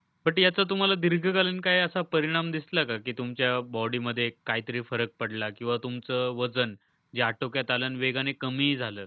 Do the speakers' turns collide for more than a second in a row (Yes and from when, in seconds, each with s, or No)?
No